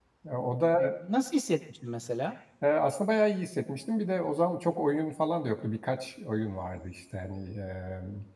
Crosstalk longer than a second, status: none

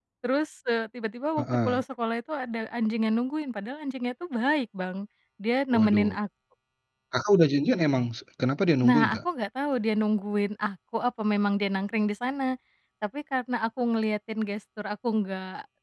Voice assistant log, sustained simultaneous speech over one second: none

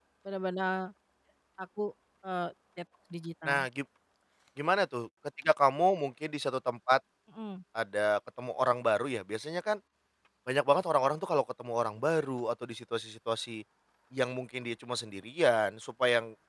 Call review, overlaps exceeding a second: none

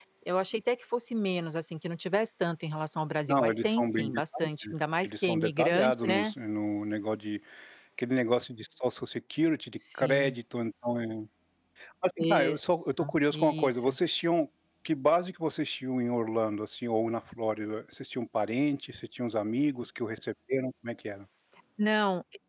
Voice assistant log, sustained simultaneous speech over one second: present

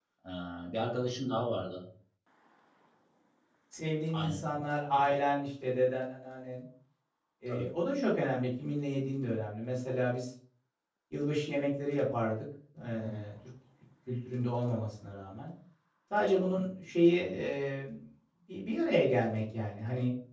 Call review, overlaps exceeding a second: none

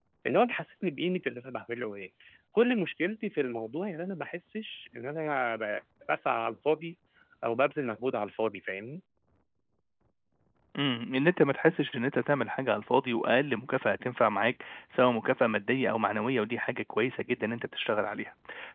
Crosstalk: none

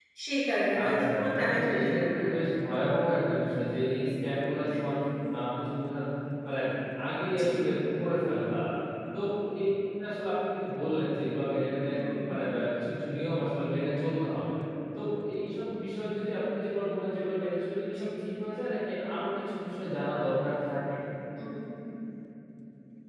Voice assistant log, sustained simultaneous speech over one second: present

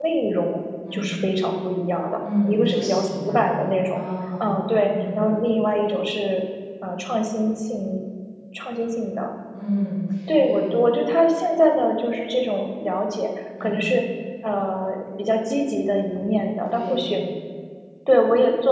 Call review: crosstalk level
present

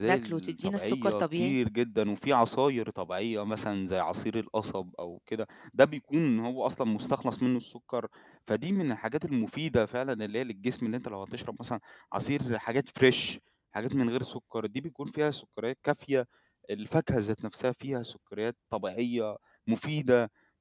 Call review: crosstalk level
present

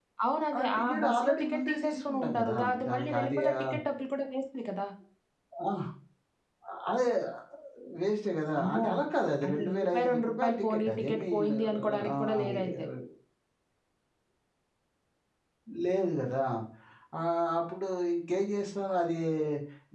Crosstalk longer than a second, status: present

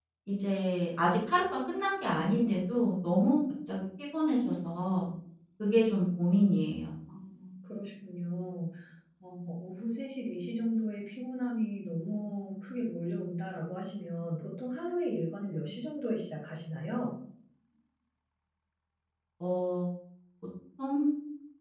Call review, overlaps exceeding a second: none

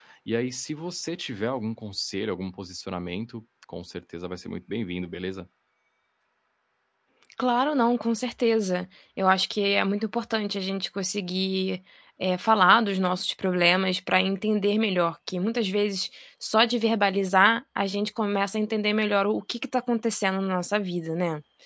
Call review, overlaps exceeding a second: none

